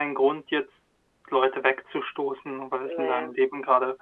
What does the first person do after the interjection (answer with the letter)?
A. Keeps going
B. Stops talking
A